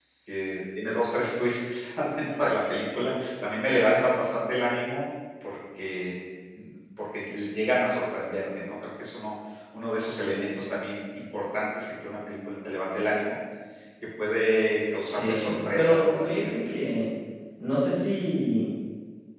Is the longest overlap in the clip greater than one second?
Yes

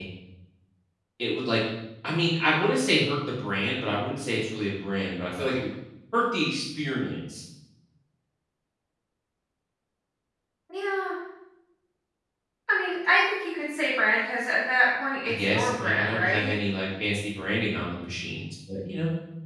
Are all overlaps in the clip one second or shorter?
No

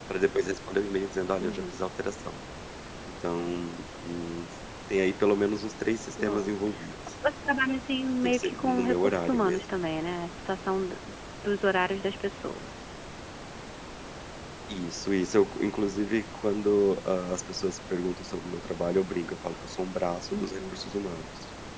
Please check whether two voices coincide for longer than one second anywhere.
Yes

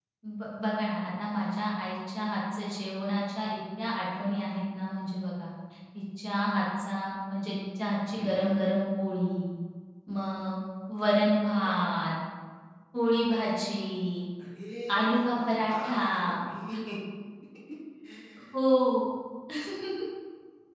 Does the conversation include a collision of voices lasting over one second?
Yes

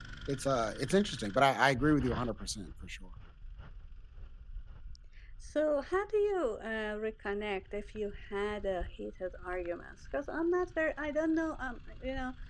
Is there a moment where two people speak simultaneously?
No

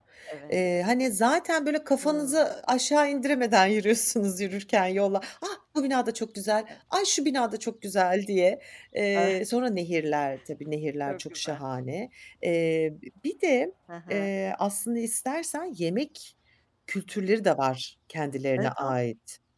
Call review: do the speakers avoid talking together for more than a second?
Yes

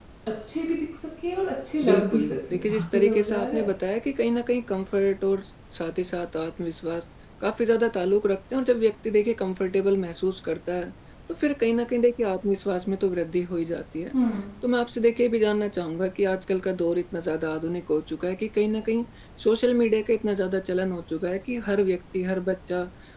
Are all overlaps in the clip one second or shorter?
No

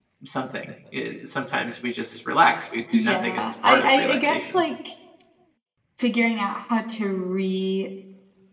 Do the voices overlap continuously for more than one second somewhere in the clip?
Yes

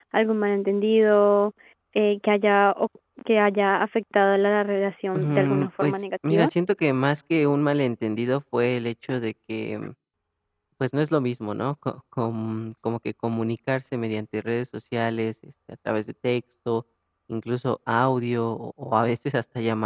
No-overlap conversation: No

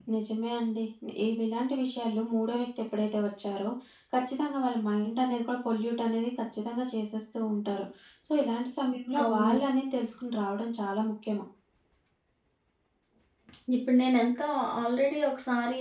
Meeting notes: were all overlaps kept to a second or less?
Yes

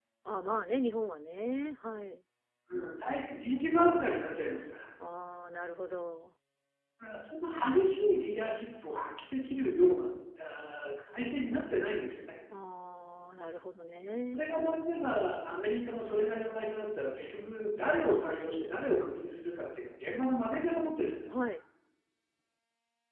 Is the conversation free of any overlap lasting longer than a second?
Yes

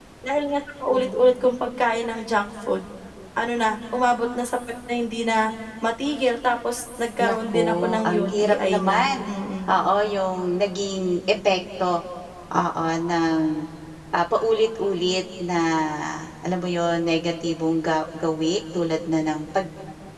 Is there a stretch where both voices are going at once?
Yes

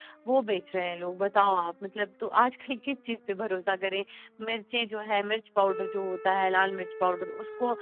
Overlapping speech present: No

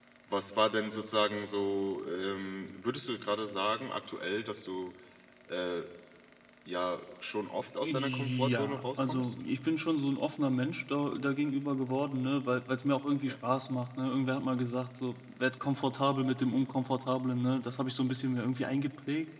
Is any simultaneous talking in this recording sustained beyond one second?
Yes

